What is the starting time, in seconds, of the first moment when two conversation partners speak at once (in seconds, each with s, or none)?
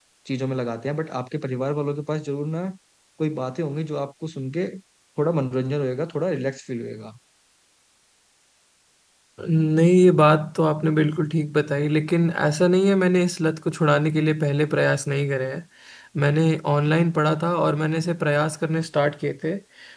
none